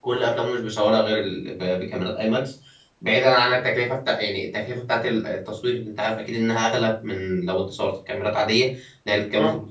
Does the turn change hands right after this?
No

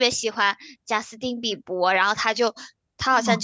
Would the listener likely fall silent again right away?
Yes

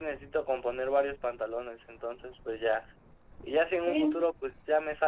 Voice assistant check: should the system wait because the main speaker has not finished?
Yes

